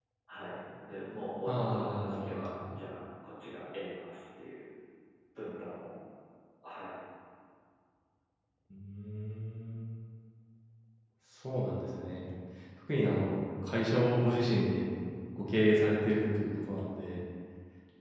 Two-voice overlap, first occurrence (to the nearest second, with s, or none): 1 s